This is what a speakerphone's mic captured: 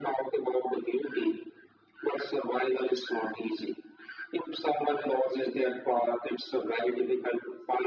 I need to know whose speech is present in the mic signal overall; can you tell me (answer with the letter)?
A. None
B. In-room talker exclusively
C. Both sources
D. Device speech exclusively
D